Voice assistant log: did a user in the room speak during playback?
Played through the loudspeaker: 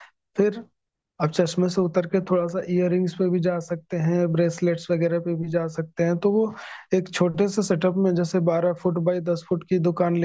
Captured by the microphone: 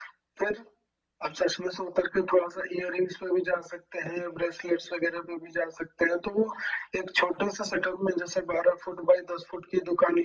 No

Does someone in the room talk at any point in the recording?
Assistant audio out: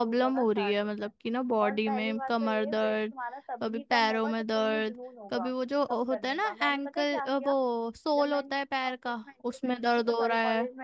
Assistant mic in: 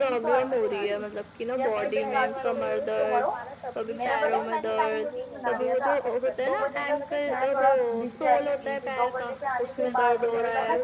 Yes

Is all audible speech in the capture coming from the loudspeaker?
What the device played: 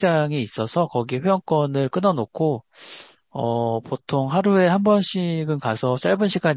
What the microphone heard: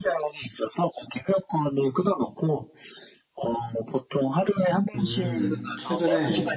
No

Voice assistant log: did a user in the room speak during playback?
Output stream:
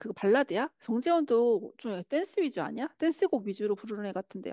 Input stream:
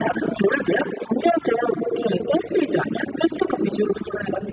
No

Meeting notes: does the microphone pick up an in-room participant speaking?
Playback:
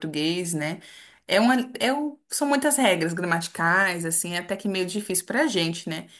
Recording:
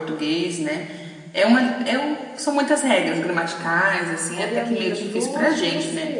Yes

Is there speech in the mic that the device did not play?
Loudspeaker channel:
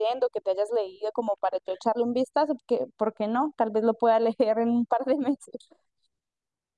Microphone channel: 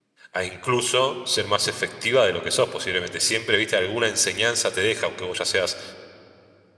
Yes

